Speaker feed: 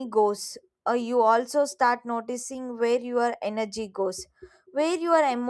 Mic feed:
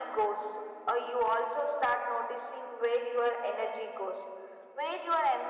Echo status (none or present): present